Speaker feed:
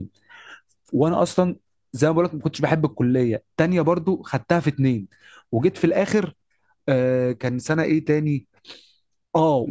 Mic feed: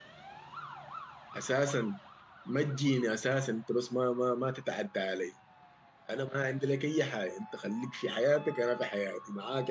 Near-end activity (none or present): present